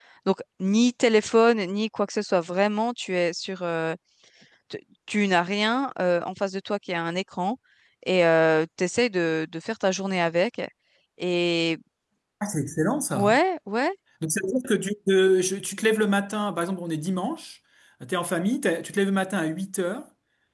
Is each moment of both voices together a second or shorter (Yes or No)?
Yes